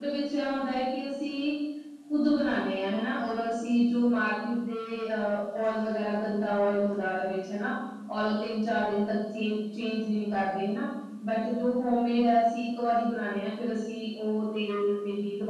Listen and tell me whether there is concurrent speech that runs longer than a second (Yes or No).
No